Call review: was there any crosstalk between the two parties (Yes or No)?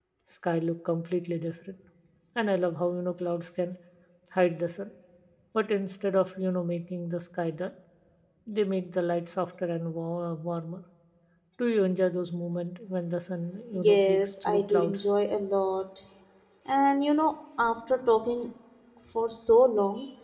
Yes